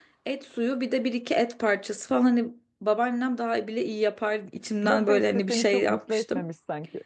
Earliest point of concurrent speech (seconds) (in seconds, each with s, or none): 4.8 s